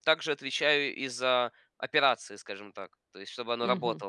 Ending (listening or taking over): listening